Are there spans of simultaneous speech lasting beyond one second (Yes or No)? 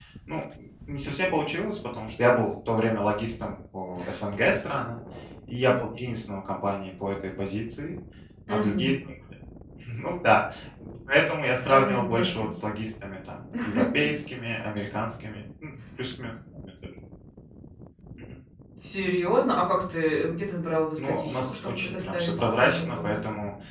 Yes